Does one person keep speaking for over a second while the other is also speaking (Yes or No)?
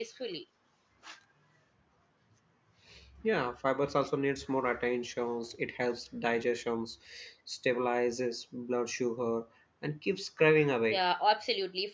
No